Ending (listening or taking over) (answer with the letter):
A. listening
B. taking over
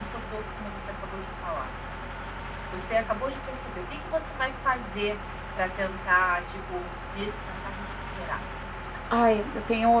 B